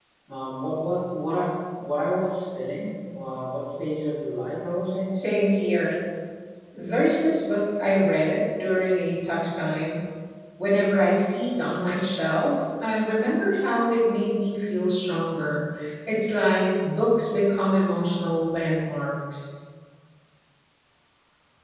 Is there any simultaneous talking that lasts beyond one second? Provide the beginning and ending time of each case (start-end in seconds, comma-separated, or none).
none